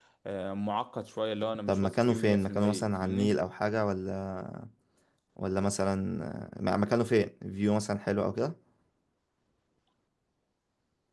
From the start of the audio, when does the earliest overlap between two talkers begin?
2 s

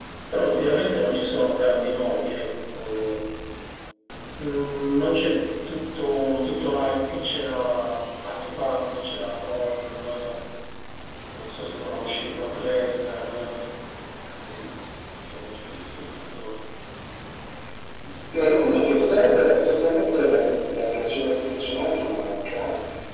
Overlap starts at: none

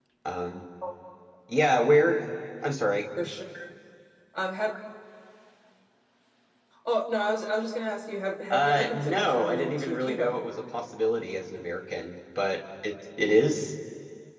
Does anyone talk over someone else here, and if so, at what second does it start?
9 s

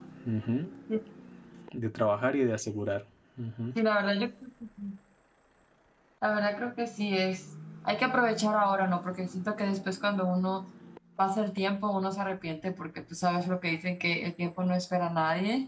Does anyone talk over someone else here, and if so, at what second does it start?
none

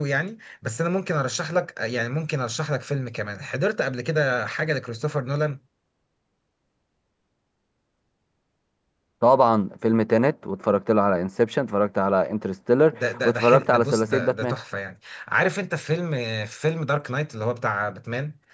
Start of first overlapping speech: 13 s

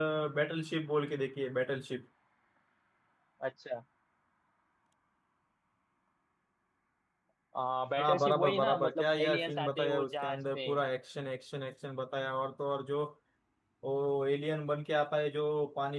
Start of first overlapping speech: 8 s

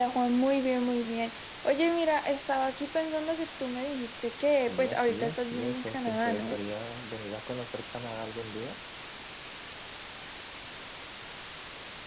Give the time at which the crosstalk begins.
5 s

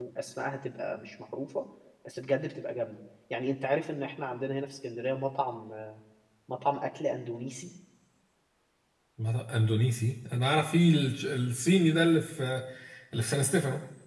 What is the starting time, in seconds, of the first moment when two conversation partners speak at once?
none

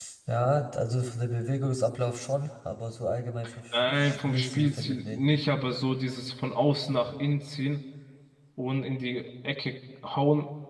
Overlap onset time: 4 s

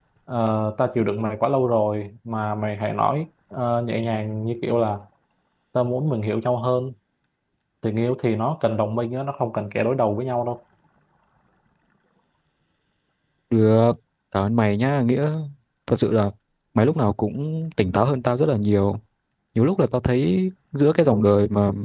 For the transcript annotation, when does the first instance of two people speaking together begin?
none

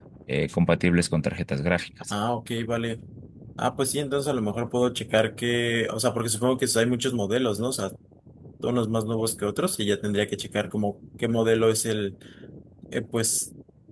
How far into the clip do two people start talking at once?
none

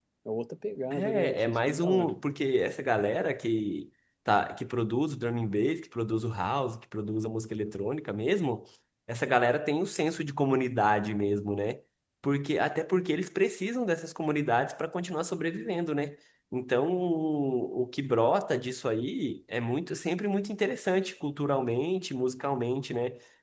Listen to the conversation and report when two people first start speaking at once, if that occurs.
1 s

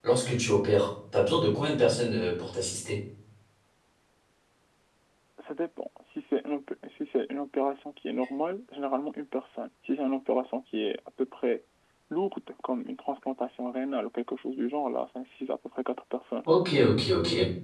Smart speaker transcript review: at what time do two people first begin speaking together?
none

